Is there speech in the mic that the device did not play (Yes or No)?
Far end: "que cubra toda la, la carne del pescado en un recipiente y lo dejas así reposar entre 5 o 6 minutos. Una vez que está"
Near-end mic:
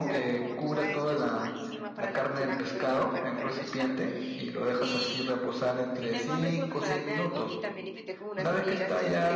Yes